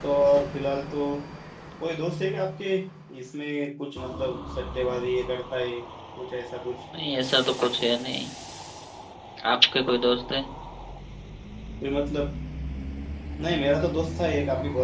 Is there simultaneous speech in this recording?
No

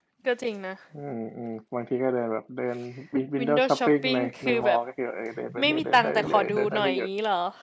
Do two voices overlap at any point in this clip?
Yes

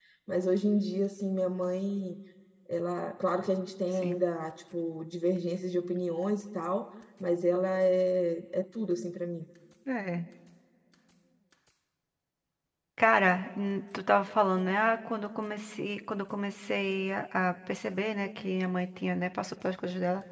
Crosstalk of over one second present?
No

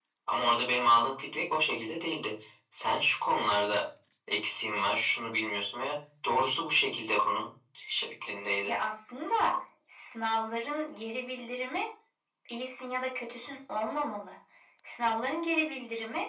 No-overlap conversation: Yes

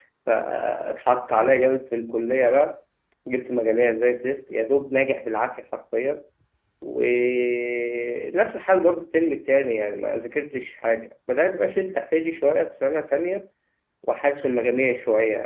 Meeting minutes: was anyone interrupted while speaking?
No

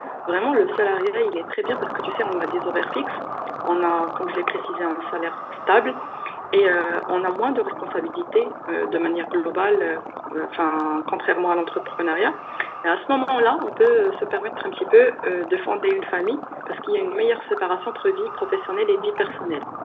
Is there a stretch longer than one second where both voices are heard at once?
No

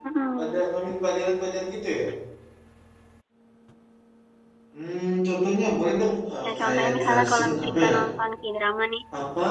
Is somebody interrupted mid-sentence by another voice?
Yes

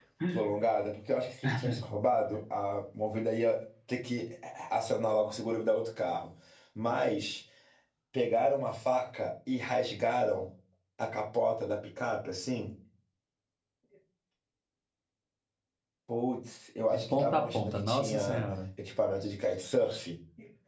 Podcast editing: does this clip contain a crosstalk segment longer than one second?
Yes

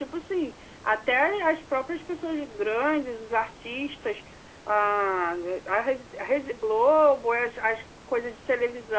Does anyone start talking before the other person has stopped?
No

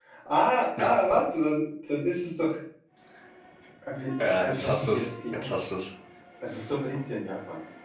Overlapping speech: Yes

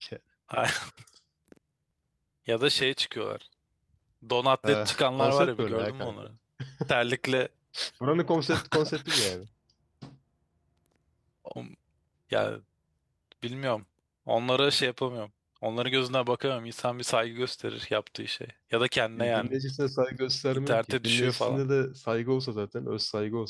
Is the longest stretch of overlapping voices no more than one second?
No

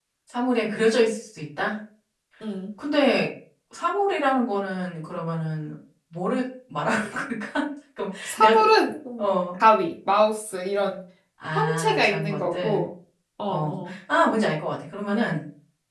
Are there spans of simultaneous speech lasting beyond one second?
Yes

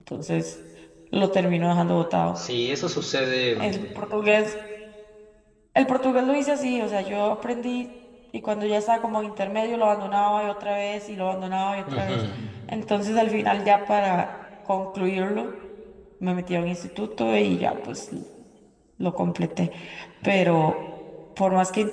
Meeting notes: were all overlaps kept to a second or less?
Yes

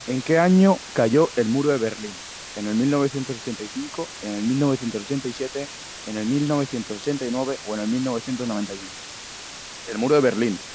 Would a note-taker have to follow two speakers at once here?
No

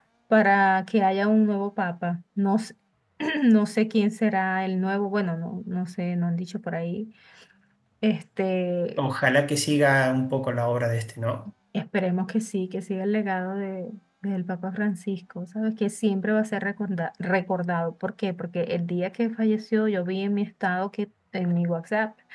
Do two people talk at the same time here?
No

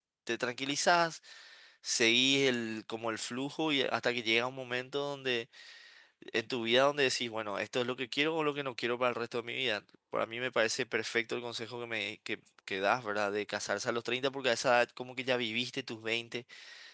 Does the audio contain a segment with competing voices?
No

